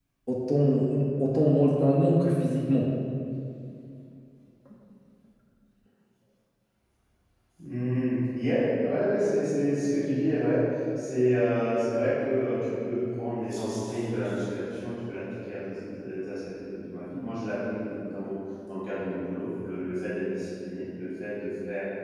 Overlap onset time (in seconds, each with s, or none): none